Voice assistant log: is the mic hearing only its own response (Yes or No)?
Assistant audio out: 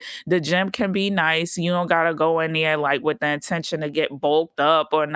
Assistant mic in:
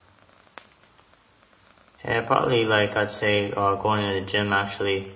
No